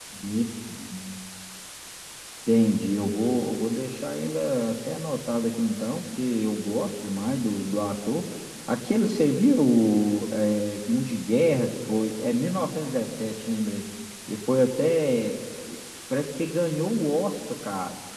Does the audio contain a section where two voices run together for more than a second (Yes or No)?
No